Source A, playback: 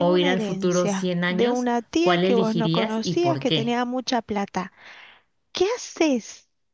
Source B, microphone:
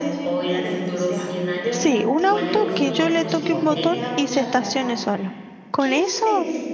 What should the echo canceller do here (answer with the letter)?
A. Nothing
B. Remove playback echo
B